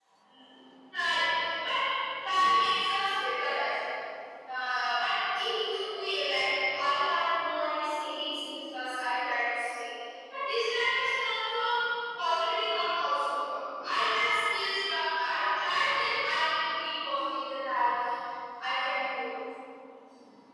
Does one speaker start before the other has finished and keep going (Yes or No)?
No